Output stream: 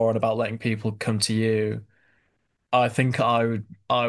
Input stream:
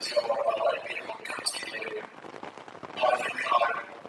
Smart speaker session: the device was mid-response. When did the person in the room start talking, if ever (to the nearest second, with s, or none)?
none